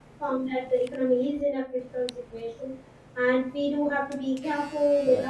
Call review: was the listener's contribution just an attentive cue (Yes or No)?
Yes